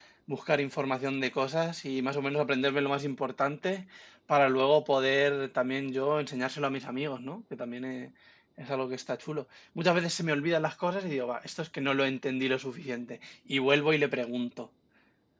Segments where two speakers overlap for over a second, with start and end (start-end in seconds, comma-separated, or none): none